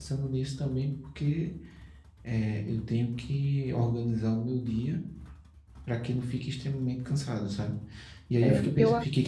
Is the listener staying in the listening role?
Yes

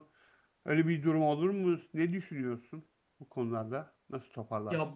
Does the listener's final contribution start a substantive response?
Yes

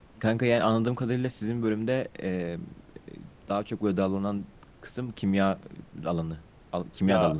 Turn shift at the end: Yes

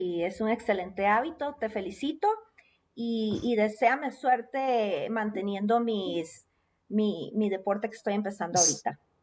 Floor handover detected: Yes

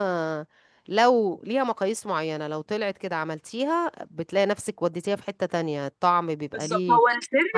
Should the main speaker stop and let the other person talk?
Yes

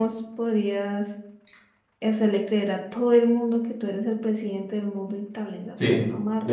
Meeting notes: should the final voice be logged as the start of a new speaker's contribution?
Yes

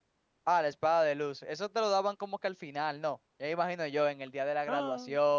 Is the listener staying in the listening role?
Yes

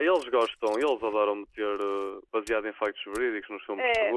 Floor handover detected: Yes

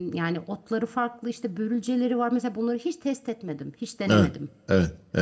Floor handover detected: Yes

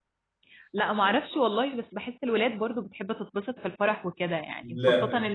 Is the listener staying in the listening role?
Yes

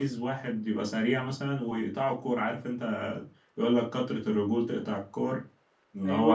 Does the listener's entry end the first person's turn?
No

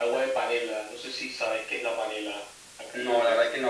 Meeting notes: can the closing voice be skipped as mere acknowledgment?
No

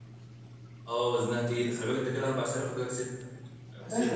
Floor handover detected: Yes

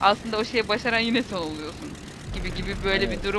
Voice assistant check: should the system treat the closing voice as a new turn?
No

